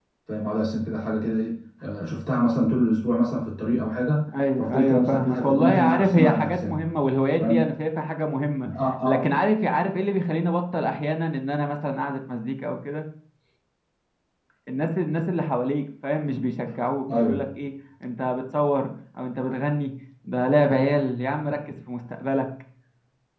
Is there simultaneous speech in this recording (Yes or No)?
Yes